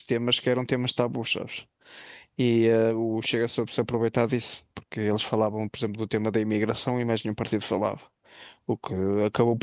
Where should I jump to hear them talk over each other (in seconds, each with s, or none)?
none